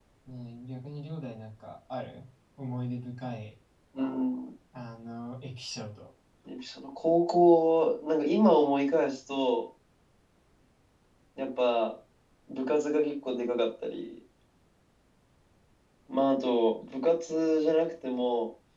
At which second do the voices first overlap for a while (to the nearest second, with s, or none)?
none